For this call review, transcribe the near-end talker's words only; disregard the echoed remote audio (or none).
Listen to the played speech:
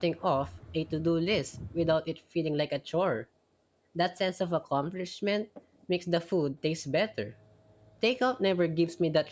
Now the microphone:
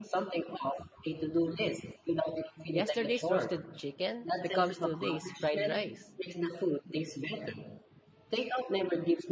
Yesterday's roasted chicken becomes today's fried rice.